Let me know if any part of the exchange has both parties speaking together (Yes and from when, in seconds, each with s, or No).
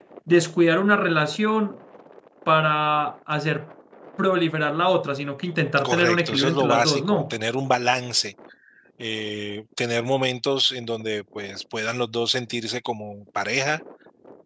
Yes, from 5.8 s